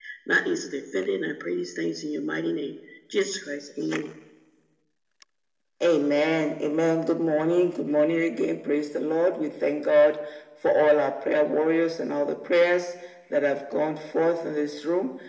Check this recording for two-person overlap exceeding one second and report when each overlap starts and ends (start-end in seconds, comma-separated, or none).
none